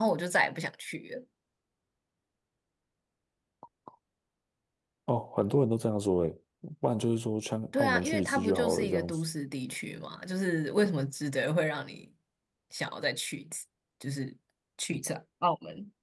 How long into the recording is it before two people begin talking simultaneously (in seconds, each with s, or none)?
7.7 s